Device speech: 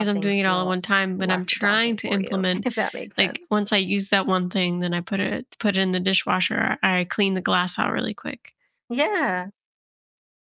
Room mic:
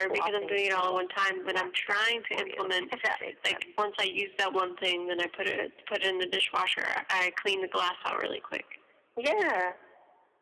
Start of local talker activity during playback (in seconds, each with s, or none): none